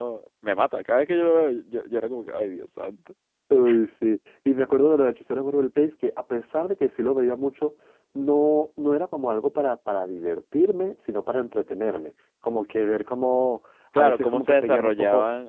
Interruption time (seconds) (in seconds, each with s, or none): 13.9 s